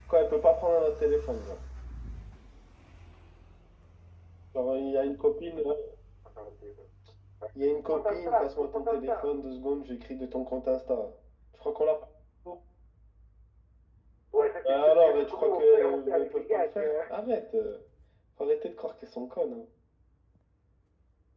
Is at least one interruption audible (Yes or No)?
Yes